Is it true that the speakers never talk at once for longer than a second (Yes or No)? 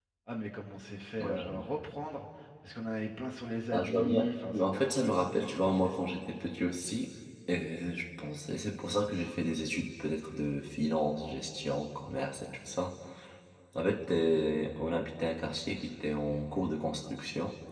No